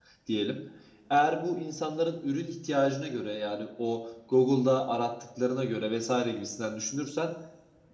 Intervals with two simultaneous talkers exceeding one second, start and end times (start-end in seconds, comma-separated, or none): none